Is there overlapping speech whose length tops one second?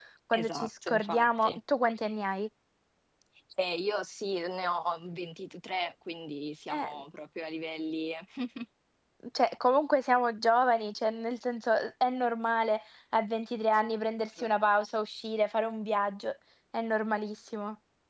Yes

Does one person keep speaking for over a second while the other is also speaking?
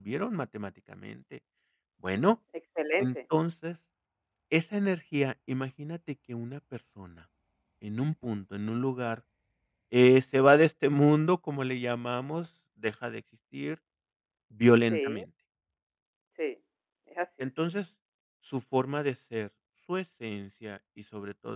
No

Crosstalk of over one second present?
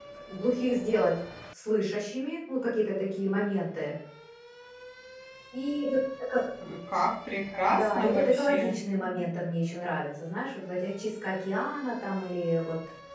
Yes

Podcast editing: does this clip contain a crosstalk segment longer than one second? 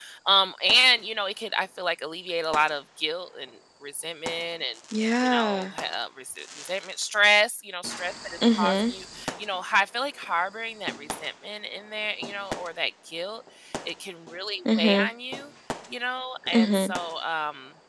No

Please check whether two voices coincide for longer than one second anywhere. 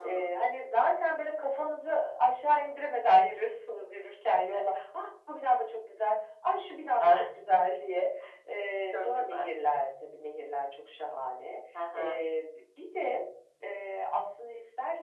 No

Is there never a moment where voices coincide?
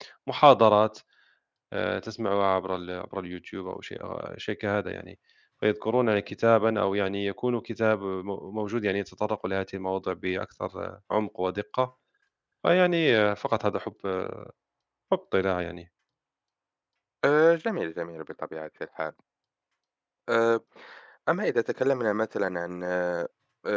Yes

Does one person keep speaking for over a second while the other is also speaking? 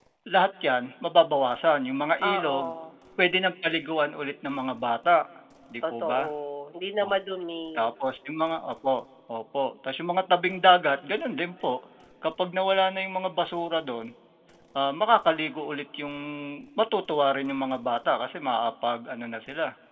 No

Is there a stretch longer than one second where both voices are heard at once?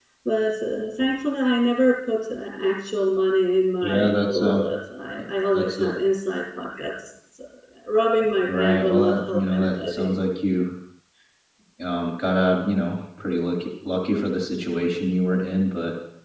Yes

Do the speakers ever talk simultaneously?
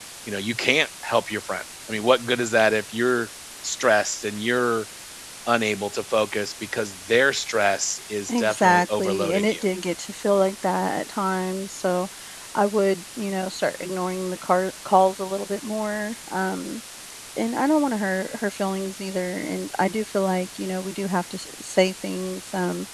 Yes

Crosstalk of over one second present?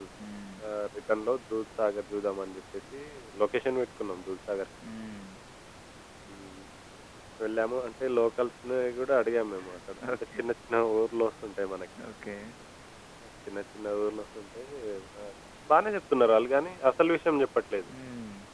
No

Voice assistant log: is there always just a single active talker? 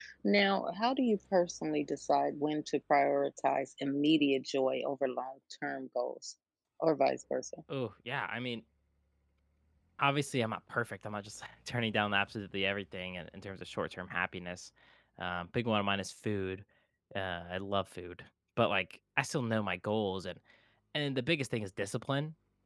Yes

